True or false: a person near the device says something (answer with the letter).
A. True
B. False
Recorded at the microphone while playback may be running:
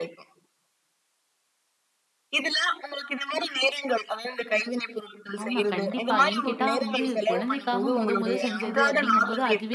A